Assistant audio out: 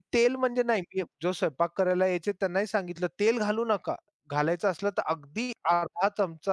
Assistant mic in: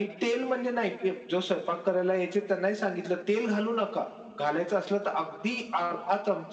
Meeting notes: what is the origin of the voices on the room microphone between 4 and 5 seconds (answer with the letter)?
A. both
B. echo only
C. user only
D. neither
B